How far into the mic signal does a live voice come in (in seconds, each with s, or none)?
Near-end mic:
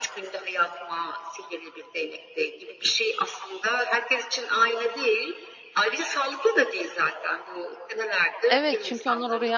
8.5 s